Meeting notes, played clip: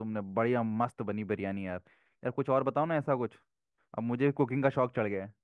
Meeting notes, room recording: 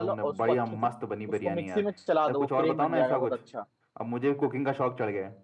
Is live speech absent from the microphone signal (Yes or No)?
No